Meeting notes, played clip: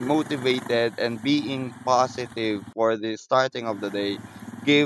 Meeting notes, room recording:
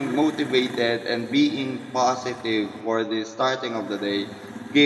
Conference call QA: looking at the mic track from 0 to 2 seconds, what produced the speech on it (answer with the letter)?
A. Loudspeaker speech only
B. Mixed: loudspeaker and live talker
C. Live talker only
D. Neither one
A